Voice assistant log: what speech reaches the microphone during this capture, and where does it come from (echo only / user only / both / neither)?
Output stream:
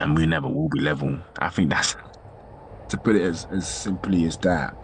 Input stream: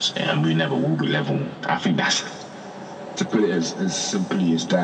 echo only